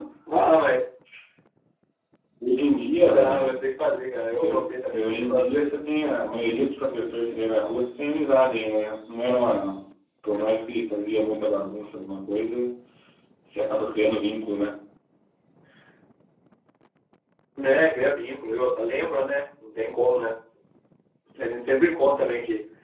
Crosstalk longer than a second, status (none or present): present